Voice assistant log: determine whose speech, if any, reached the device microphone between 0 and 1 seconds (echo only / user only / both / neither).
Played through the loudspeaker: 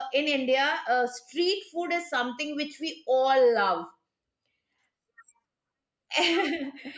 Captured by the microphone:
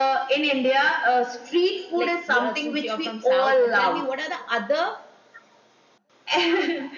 echo only